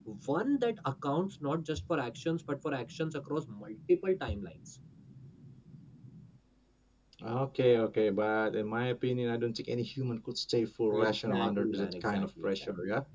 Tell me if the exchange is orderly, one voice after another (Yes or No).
No